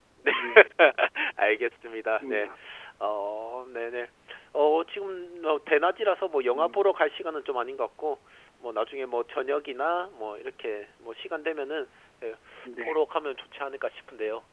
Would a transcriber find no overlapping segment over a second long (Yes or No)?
Yes